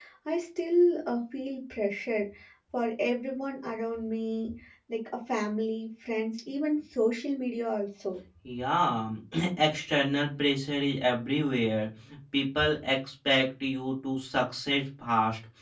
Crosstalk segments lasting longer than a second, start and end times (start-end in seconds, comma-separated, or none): none